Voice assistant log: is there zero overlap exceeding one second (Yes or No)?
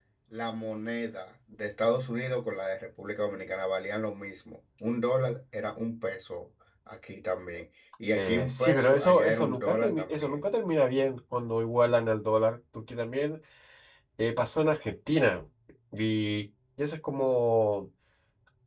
No